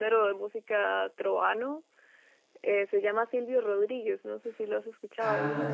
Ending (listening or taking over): taking over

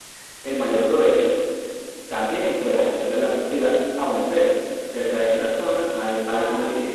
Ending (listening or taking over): listening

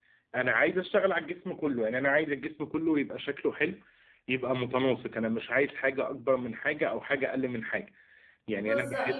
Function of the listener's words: taking over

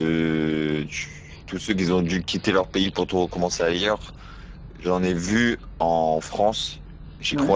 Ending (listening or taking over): listening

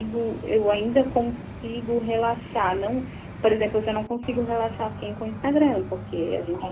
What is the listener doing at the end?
listening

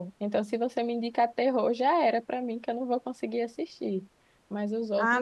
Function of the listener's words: taking over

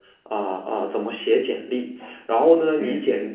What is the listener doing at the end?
listening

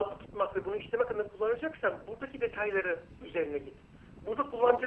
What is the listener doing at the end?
listening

